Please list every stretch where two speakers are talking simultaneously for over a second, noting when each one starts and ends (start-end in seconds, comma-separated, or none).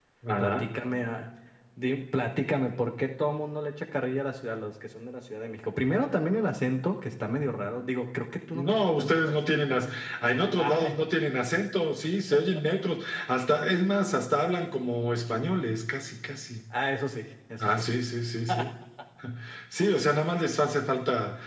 8.5-9.9